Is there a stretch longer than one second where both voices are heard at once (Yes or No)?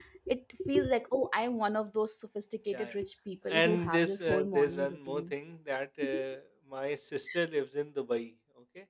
Yes